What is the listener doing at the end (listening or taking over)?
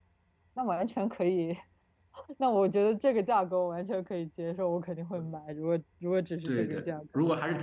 taking over